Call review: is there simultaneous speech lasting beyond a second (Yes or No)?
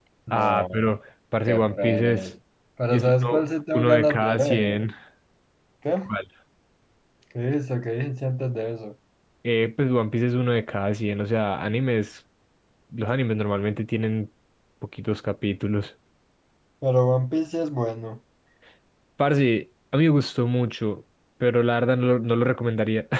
Yes